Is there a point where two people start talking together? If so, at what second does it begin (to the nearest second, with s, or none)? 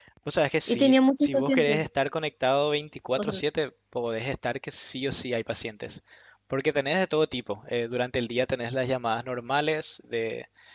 1 s